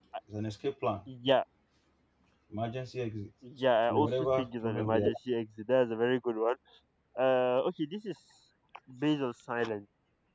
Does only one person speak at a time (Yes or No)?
No